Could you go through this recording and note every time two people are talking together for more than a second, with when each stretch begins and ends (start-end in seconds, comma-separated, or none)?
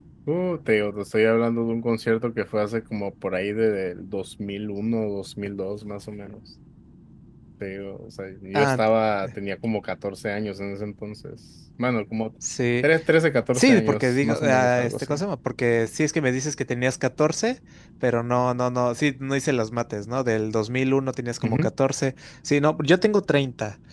13.5-15.2